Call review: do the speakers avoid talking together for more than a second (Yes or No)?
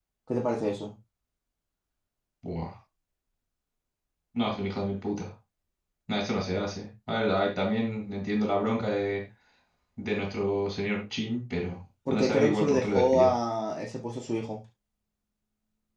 No